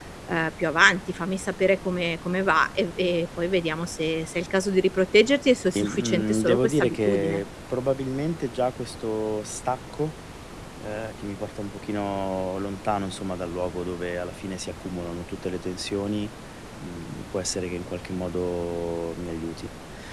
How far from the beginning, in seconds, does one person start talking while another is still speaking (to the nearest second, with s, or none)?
6 s